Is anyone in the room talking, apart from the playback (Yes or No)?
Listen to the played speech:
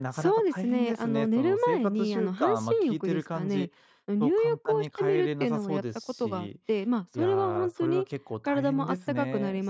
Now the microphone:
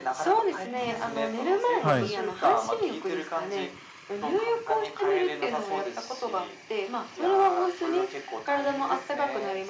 Yes